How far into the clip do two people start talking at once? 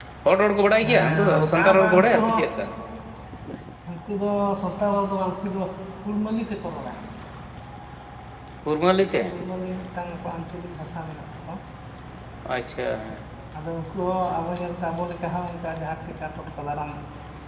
0.9 s

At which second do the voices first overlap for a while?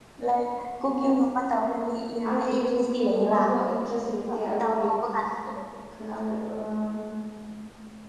1.7 s

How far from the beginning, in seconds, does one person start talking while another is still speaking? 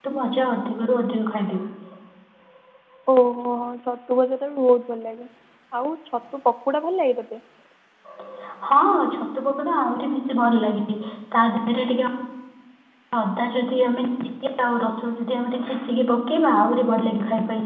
none

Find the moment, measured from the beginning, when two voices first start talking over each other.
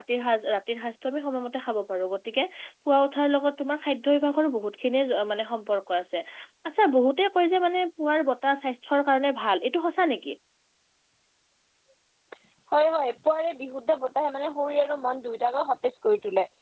none

